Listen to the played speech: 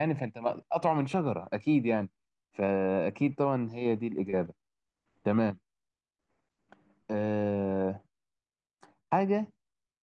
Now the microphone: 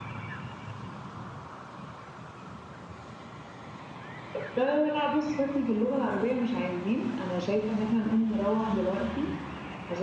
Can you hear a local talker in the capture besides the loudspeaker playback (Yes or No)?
Yes